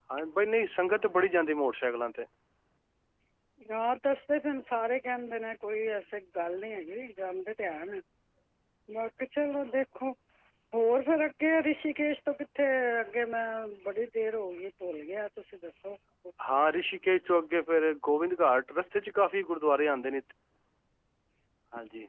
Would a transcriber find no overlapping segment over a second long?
Yes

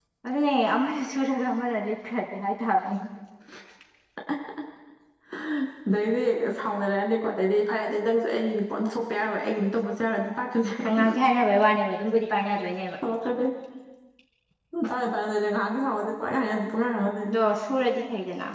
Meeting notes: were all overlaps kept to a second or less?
Yes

